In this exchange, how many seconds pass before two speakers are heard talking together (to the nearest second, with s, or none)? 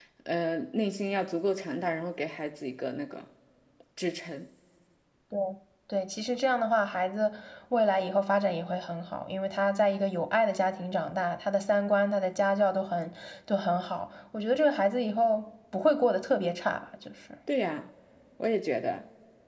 none